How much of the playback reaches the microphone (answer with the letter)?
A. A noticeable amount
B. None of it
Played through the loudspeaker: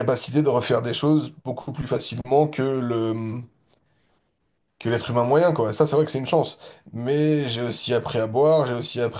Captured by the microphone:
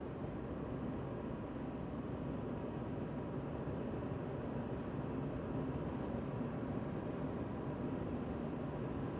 B